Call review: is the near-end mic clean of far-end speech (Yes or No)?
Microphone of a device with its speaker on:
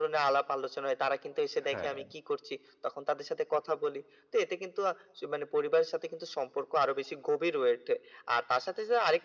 No